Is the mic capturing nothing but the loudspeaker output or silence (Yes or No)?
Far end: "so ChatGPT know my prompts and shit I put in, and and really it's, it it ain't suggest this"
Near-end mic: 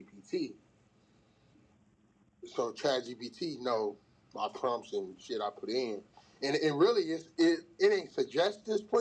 Yes